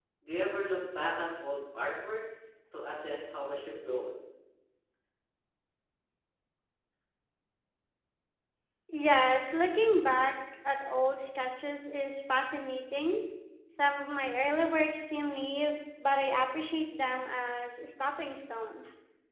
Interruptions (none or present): none